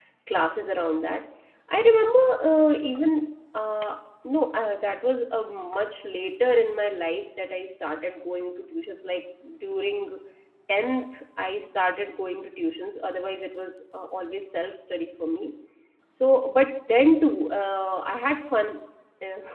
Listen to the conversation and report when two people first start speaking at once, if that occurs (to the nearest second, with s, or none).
none